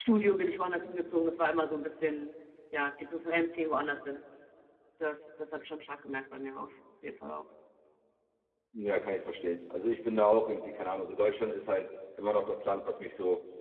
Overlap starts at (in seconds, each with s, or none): none